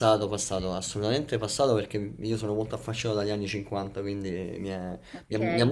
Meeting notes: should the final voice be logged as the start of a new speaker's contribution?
Yes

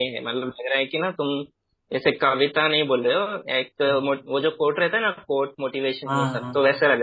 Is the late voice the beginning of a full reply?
Yes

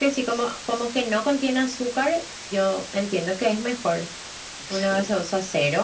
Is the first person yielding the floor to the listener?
No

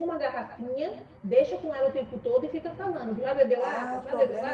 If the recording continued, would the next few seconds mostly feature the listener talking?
Yes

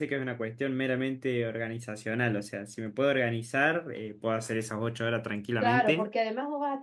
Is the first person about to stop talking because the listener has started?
Yes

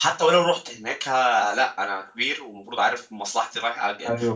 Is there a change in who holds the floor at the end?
Yes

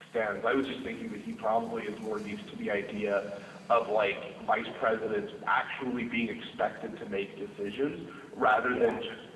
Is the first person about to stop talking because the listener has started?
No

